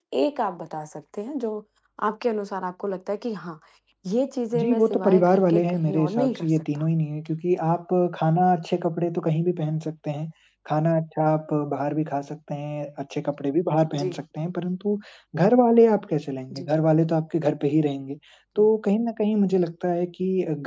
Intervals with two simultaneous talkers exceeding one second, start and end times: 4.6-6.8

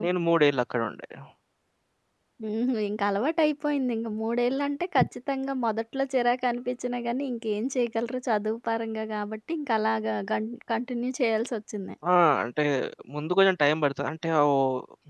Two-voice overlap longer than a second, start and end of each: none

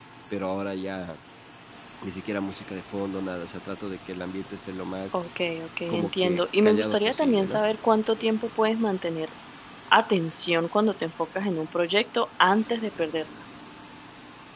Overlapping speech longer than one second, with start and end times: 5.9-7.6

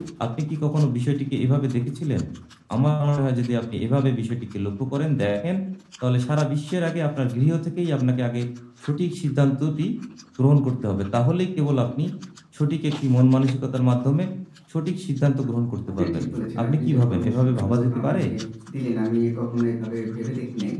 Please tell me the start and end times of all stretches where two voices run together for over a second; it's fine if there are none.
16.6-18.2

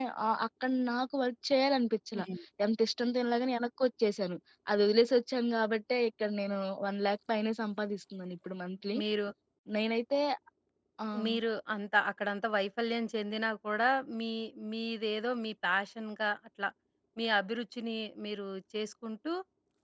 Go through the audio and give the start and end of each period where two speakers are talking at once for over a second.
none

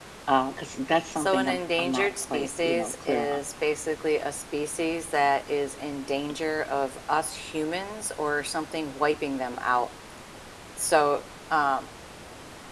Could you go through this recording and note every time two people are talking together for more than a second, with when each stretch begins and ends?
1.2-3.4

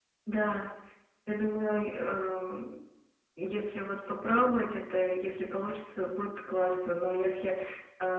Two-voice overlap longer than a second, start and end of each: none

